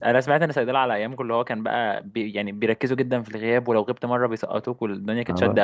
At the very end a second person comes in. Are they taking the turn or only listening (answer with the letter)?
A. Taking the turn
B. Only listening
A